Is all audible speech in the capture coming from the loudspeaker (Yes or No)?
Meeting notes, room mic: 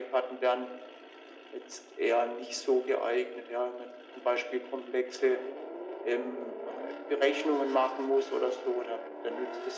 Yes